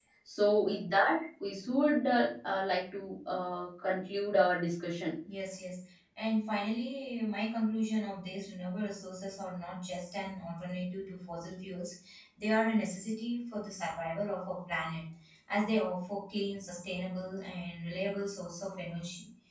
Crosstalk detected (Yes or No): No